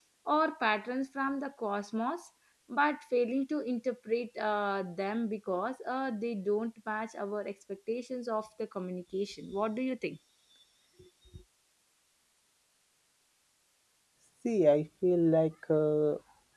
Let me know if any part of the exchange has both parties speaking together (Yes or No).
No